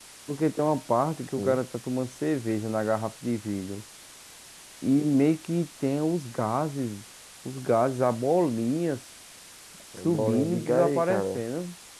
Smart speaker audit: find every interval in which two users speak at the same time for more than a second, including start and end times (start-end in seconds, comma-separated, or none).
10.0-11.4